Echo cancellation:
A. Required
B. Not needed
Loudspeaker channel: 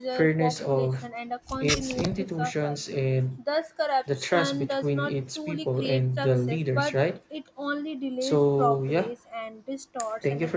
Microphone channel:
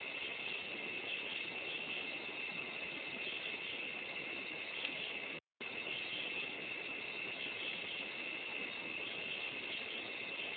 B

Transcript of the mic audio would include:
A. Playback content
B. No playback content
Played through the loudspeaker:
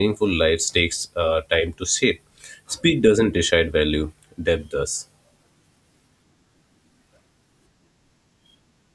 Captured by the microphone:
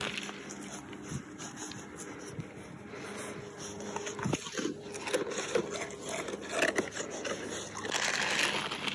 B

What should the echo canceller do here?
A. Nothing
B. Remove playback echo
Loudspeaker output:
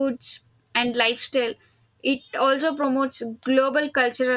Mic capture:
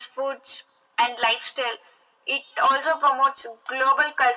B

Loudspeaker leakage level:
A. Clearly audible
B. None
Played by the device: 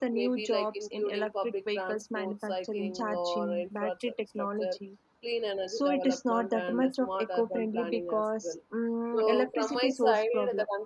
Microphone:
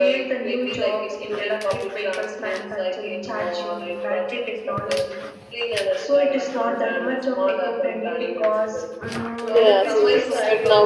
A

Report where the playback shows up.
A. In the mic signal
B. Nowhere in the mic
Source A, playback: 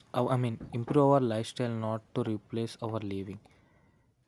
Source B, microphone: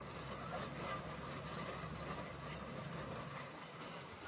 B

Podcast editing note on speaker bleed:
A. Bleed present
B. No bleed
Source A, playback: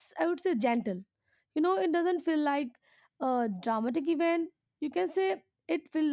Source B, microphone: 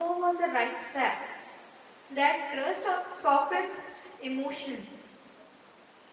B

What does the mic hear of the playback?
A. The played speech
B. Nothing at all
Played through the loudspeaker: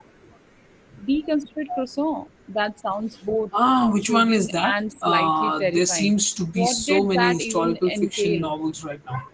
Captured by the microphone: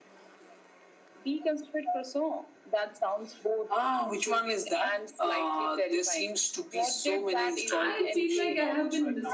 A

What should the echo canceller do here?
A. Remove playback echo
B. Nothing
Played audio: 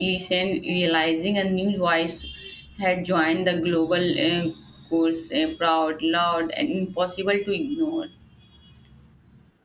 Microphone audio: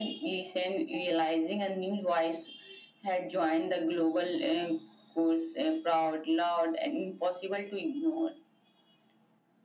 A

